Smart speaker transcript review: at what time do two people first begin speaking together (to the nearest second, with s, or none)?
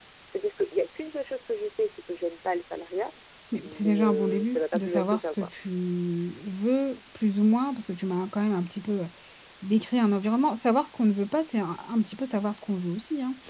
4 s